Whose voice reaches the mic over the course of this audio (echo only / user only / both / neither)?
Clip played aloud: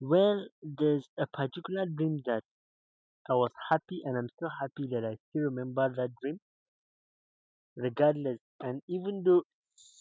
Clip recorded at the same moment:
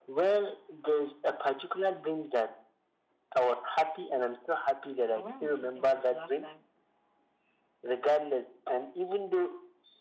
both